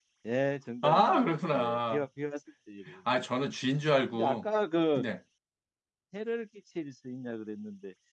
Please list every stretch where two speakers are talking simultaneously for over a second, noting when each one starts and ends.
0.8-2.0

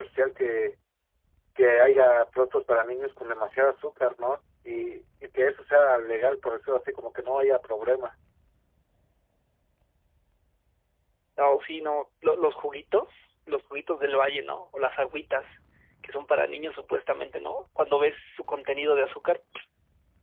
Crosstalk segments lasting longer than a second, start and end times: none

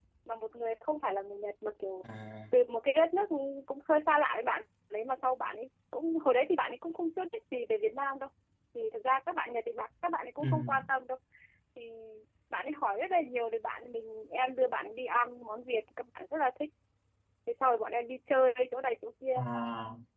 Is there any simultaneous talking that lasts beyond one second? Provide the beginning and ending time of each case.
none

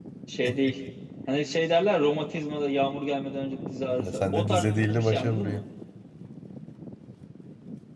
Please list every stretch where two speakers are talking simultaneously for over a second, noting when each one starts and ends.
3.9-5.6

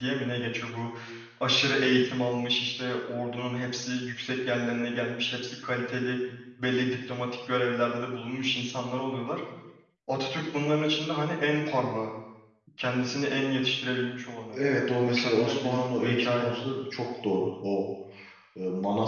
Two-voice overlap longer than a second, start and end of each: 15.0-16.6

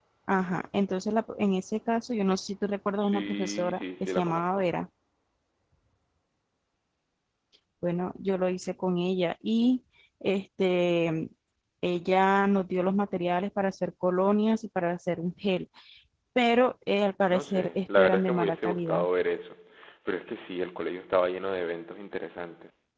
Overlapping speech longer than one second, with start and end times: 3.0-4.6, 17.3-19.1

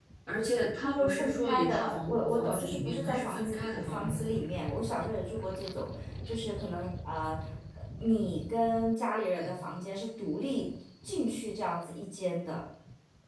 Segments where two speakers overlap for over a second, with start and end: 0.8-4.3

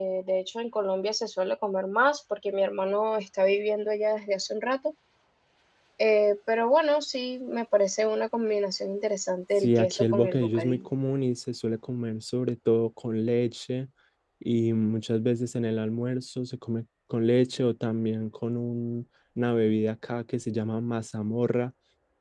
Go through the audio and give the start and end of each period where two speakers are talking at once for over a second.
9.6-10.8

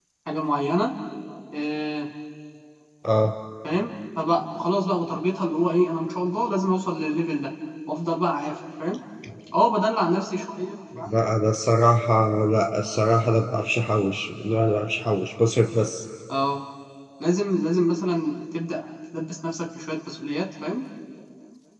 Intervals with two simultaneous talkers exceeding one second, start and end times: none

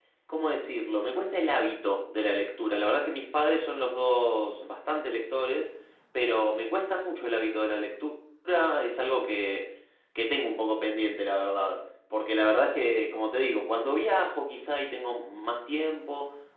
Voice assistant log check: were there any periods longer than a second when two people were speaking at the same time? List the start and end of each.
none

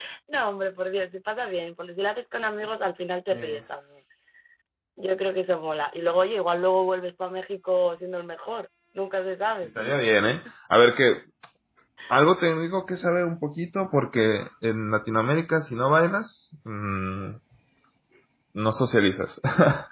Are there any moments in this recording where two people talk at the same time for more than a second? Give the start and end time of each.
none

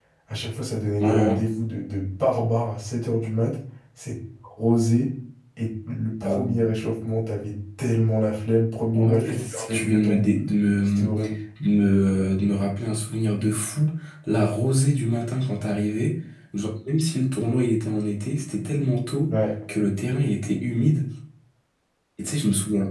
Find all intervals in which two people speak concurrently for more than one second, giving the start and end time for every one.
8.9-10.2

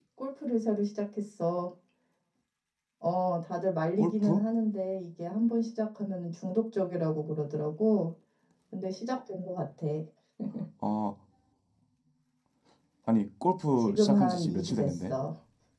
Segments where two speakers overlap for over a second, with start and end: 13.8-15.1

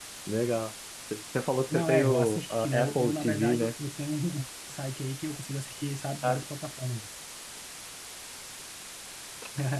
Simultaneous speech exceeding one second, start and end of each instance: 1.7-3.7

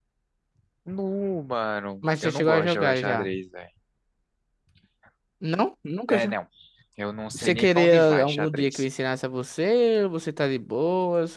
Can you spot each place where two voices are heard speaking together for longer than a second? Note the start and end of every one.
2.0-3.3, 7.3-8.8

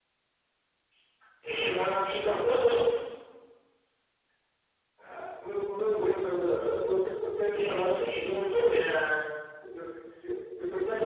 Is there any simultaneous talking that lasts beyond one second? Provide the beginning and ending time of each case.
1.6-3.0, 7.5-8.8

